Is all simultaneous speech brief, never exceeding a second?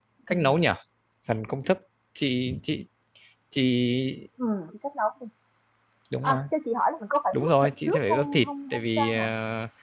No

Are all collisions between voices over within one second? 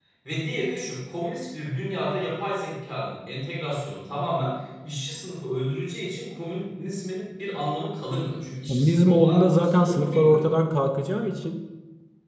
No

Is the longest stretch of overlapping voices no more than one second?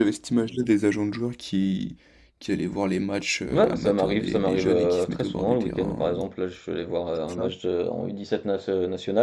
No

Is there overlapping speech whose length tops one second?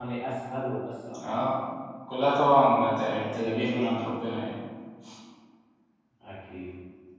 No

